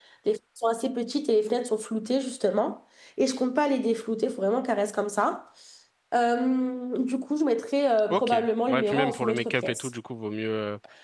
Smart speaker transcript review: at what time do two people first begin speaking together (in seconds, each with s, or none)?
8.1 s